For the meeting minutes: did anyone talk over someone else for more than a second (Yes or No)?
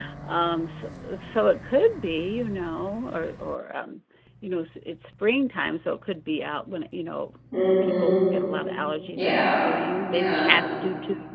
No